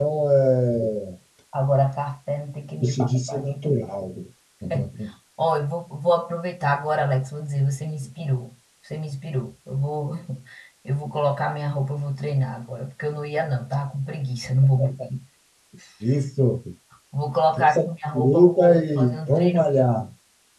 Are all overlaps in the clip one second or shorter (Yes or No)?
No